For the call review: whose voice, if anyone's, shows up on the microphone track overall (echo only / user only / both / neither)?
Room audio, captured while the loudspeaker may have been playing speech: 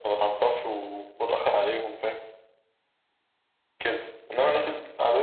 echo only